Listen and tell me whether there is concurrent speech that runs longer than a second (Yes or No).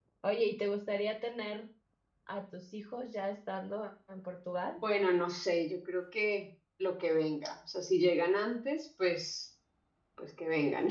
No